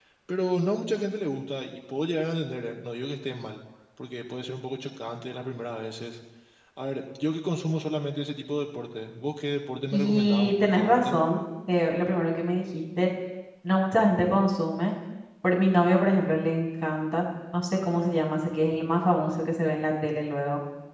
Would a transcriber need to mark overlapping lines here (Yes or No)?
Yes